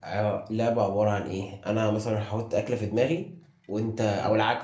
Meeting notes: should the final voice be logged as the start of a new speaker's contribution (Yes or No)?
No